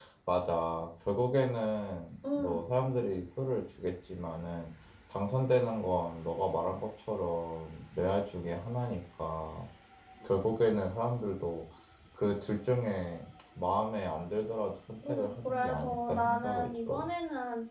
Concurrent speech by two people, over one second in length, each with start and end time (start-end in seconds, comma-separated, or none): 15.1-17.1